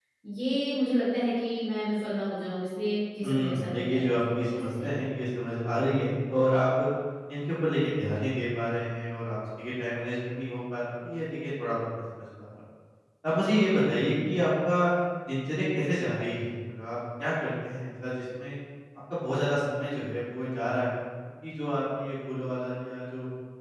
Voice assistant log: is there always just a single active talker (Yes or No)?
No